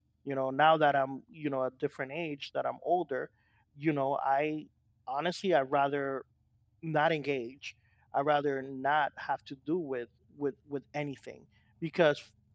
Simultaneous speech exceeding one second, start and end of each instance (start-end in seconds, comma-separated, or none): none